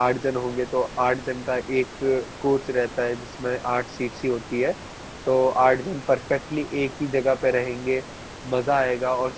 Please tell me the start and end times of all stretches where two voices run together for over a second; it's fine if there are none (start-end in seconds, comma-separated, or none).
none